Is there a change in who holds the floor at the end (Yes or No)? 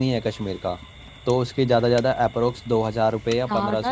Yes